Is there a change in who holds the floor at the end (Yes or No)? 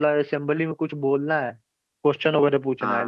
No